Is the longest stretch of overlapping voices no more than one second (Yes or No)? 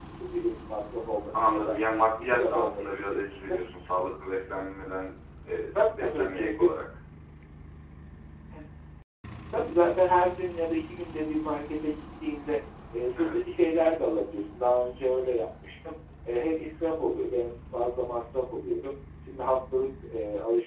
No